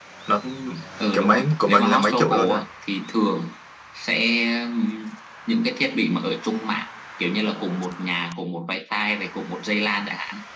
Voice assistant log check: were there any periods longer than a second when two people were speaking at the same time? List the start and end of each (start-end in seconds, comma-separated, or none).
1.1-2.6